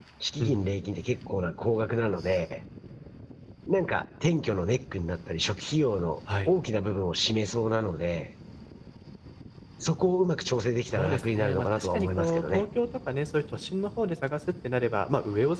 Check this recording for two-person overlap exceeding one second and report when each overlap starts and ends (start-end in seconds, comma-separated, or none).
10.9-12.6